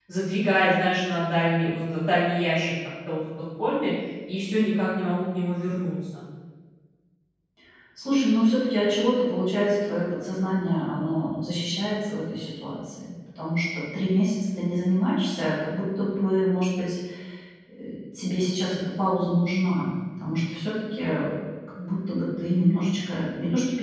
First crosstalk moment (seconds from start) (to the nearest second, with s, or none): none